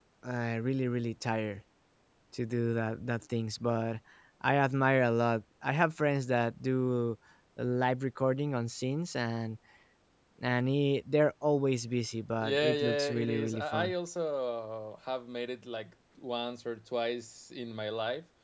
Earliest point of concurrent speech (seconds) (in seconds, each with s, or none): 12.4 s